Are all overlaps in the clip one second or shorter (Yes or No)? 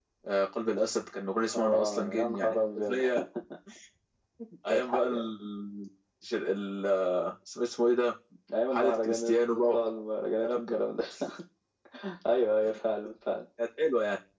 No